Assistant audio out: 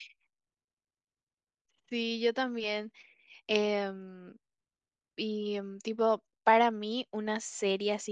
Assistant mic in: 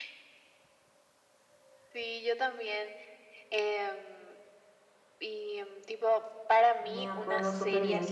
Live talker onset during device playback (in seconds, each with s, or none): 6.8 s